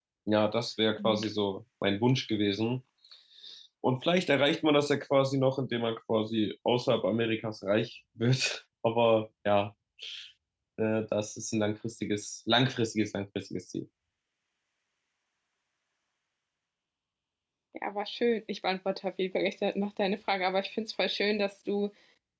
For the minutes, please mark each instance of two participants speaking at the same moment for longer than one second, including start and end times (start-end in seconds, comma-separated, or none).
none